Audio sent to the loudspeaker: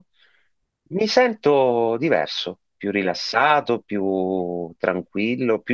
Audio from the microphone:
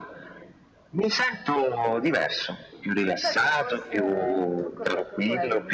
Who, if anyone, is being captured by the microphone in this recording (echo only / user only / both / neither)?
both